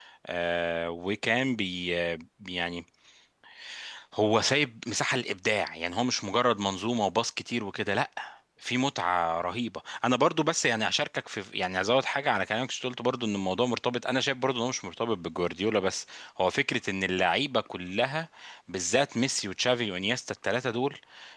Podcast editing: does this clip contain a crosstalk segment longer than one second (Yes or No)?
No